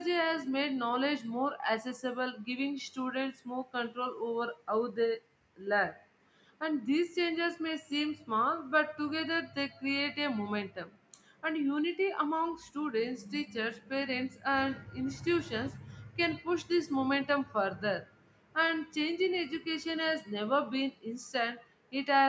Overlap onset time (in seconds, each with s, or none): none